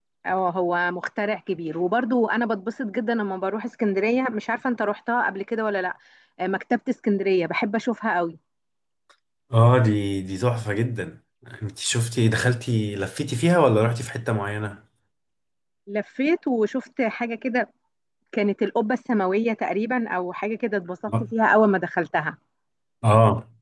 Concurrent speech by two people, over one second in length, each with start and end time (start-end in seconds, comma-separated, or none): none